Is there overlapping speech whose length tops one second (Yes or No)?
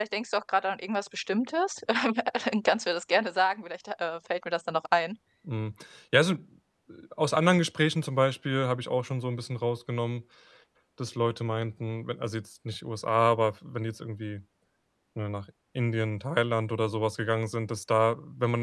No